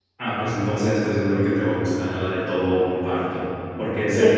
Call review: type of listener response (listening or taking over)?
listening